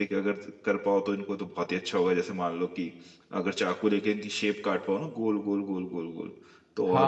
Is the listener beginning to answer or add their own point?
Yes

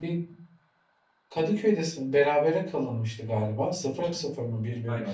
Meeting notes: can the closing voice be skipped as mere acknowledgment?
No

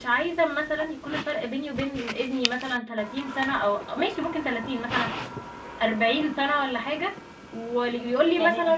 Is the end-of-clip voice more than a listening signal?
No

